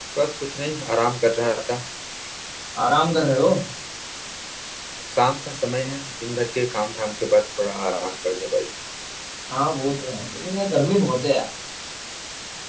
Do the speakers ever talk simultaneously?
No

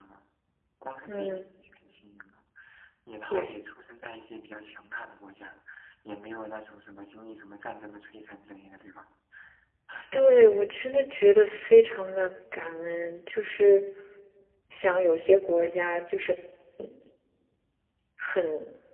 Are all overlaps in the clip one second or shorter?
Yes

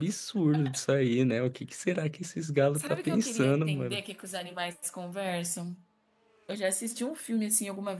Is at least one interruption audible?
Yes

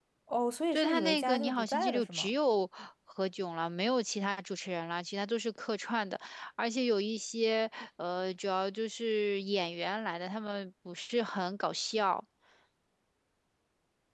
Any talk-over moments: Yes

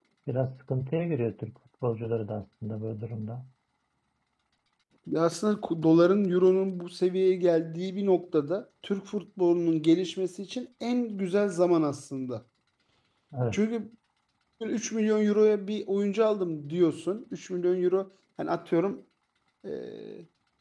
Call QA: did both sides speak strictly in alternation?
Yes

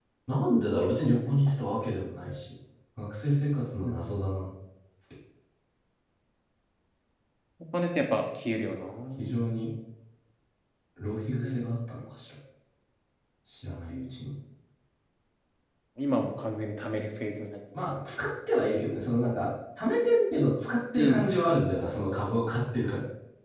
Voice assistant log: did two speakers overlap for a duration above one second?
No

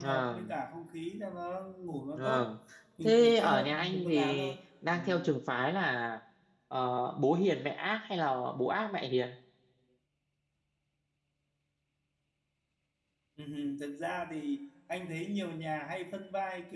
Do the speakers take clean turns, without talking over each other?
No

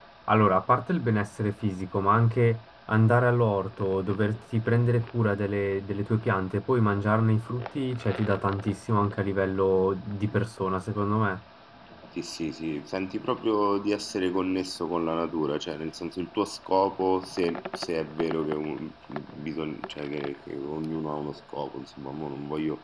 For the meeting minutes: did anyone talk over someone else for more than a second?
No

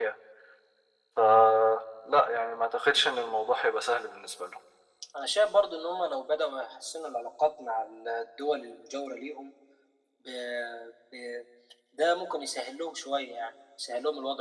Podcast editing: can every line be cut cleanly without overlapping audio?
Yes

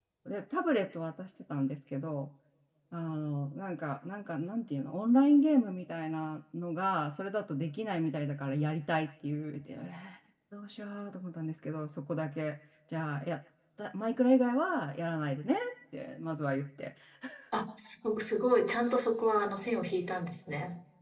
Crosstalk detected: No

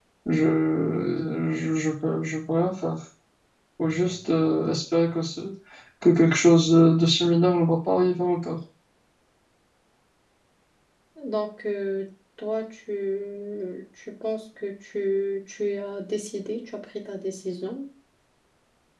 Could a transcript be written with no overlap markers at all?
Yes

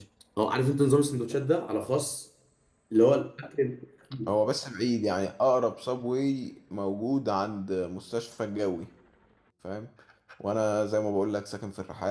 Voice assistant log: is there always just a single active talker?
Yes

